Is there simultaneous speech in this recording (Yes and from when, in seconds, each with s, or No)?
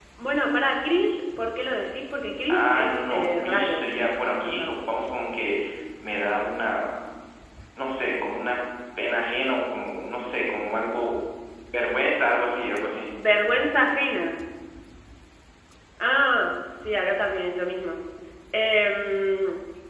Yes, from 2.5 s